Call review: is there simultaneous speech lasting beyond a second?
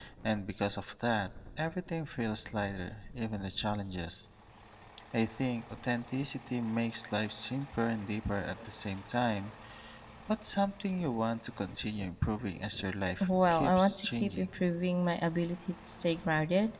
Yes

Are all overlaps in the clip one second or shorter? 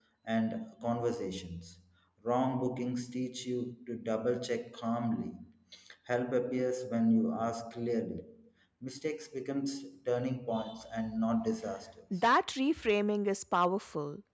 Yes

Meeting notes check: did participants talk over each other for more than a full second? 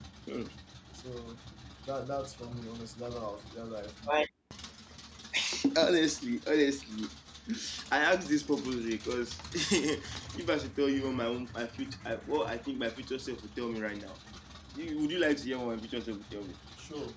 No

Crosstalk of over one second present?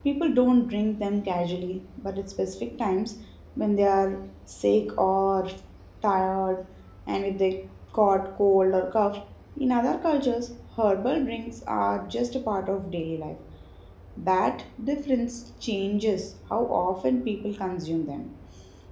No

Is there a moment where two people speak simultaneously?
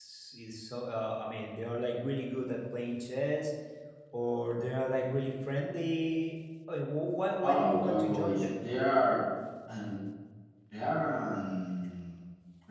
Yes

